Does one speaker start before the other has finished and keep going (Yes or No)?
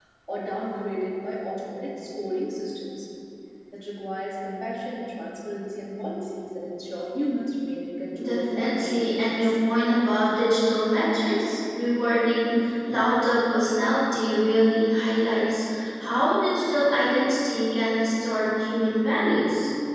Yes